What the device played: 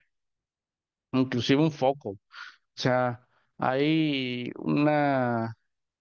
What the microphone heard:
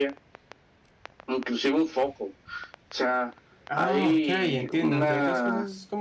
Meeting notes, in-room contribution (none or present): present